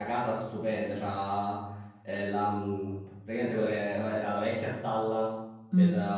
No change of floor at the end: Yes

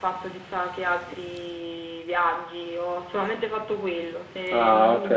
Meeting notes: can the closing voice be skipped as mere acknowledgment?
Yes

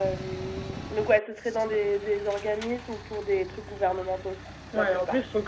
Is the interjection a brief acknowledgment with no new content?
No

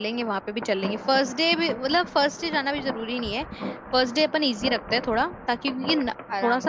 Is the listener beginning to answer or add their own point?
No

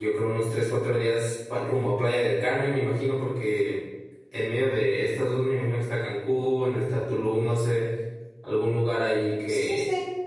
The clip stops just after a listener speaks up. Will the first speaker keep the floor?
No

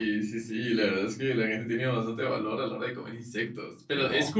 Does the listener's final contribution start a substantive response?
No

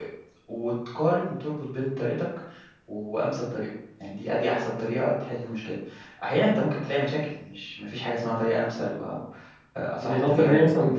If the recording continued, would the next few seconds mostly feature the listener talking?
Yes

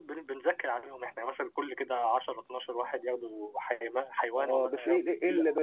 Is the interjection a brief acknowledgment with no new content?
No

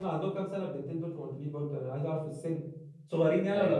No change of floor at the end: No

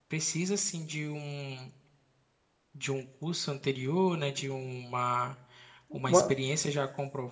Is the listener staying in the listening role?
Yes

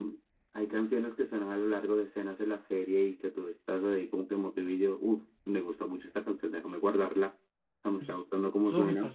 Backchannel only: No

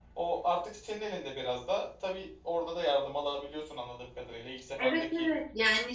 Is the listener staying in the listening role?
No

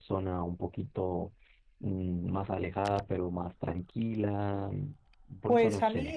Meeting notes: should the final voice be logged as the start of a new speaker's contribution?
Yes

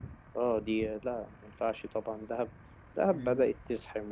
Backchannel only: Yes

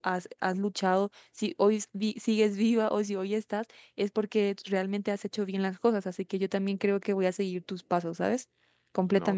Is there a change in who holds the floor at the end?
Yes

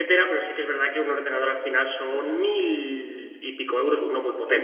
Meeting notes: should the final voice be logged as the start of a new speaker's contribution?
Yes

